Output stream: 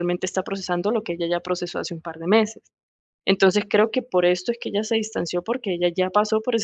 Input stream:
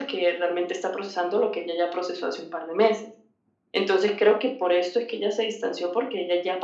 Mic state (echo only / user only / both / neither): echo only